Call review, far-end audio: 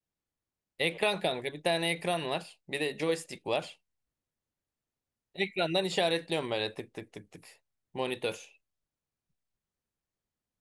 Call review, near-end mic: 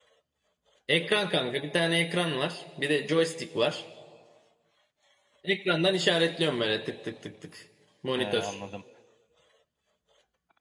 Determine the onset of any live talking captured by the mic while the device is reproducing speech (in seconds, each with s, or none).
8.2 s